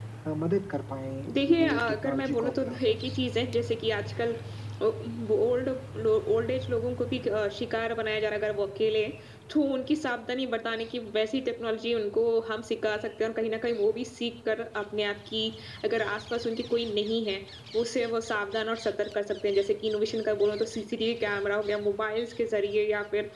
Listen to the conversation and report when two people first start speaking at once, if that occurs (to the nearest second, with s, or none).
1 s